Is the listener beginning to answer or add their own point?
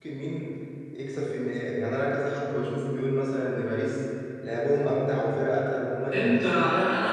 Yes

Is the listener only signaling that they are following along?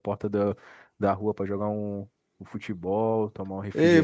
No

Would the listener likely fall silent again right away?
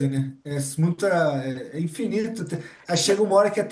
Yes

